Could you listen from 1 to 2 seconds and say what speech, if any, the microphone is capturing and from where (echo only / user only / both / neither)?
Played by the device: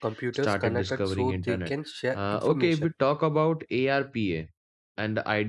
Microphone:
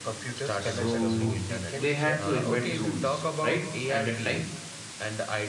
both